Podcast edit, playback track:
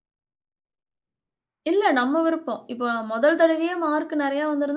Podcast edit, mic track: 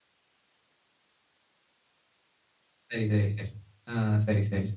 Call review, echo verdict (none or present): none